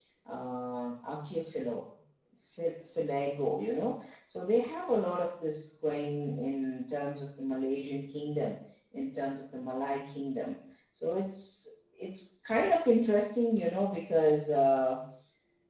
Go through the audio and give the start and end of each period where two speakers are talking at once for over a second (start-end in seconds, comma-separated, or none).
none